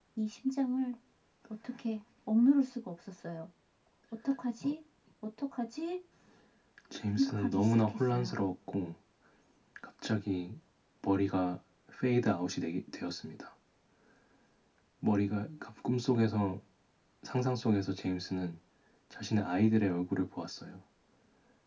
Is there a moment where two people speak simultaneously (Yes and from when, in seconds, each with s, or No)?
Yes, from 7.2 s